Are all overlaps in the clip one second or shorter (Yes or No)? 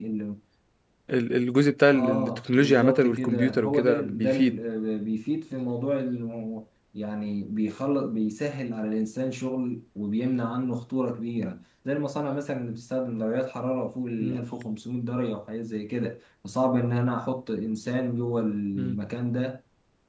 No